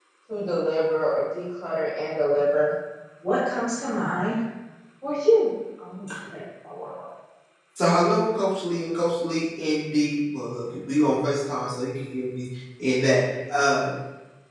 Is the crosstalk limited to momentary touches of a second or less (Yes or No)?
Yes